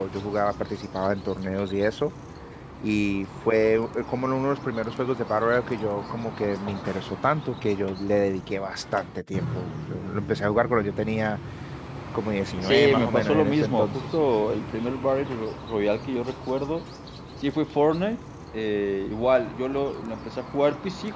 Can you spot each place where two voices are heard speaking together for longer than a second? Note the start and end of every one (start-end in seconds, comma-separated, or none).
12.6-14.2